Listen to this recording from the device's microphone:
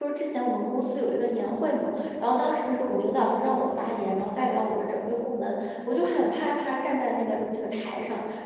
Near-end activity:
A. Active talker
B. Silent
A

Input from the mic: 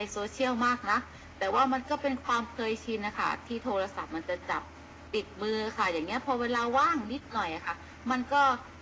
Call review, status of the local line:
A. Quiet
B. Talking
A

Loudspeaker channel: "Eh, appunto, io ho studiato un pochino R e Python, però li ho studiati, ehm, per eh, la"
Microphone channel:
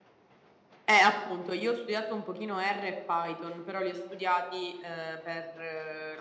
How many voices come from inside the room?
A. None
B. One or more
A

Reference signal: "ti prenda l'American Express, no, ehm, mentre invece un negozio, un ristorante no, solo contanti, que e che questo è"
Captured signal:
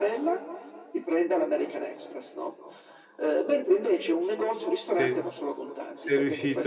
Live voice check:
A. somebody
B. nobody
A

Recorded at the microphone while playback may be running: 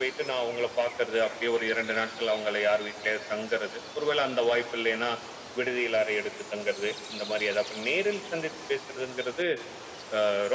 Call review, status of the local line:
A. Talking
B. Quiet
B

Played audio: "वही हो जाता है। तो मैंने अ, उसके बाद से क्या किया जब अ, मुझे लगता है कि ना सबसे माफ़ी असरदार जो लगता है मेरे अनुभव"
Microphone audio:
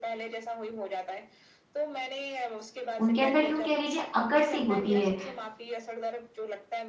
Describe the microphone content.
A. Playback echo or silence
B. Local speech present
B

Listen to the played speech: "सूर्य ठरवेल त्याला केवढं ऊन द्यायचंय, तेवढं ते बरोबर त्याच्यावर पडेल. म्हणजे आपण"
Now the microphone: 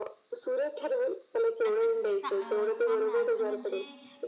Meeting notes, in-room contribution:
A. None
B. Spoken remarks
B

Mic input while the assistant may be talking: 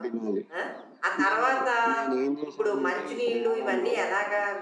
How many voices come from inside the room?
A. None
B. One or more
B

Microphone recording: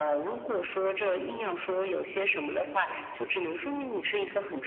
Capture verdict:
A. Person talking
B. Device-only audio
B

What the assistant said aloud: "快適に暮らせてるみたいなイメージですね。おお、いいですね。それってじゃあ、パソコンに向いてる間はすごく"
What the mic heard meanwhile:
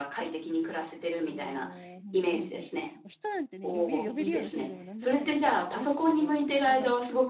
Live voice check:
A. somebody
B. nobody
A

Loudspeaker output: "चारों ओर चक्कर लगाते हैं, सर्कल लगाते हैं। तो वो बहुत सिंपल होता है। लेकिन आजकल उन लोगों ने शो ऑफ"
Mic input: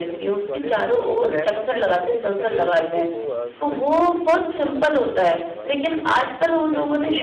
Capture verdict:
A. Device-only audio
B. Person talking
B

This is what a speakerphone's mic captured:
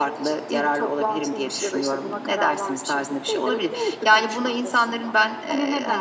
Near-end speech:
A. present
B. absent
B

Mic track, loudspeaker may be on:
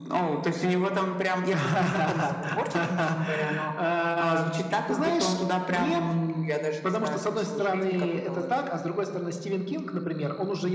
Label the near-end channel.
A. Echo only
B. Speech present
A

